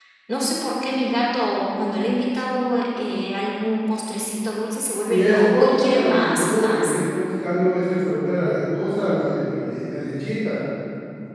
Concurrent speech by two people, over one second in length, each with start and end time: 5.1-6.9

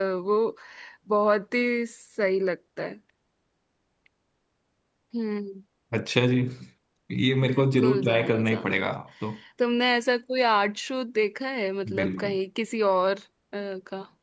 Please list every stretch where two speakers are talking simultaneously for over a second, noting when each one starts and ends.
7.4-8.8

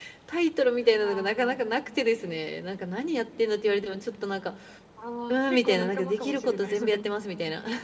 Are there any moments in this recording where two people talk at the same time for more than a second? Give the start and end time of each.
5.3-7.0

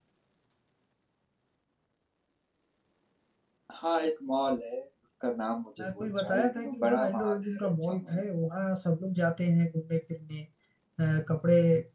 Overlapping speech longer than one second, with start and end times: 5.8-8.2

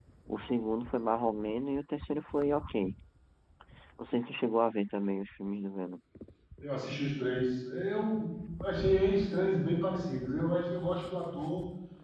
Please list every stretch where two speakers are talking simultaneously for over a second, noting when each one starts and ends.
none

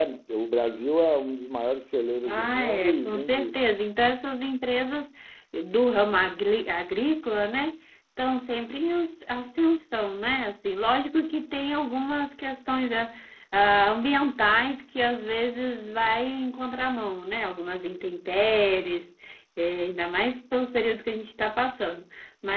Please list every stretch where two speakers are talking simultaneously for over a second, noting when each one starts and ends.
2.3-3.6

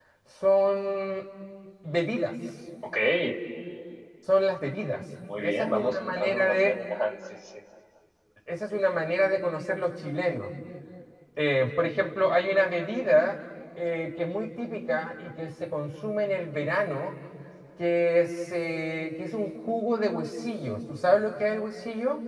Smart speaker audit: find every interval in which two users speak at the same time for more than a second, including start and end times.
5.4-6.7

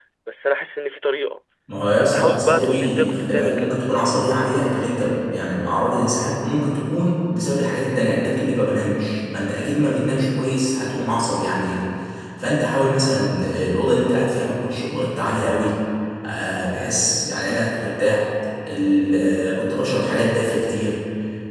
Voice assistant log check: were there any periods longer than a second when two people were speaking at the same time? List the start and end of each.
1.9-3.8

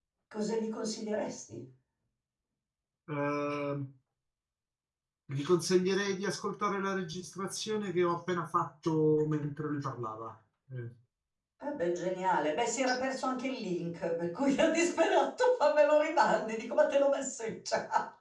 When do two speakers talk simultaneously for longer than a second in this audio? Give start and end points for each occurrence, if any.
none

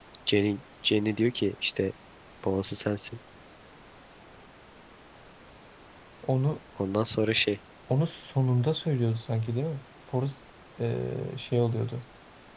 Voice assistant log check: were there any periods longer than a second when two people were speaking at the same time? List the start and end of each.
none

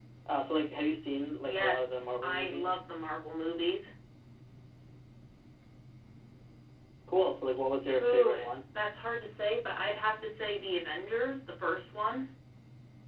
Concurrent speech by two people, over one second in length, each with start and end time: 1.4-2.9

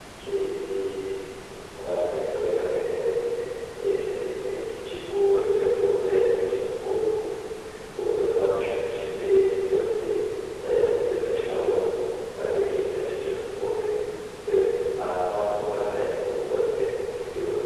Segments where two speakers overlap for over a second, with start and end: none

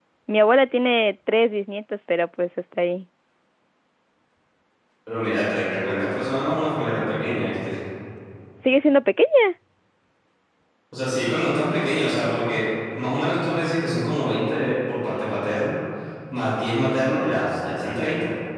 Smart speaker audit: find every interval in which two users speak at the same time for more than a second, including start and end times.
none

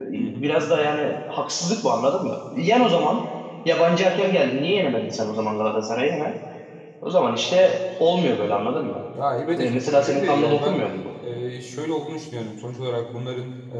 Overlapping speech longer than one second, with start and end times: 9.6-10.8

